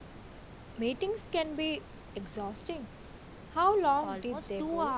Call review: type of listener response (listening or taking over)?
taking over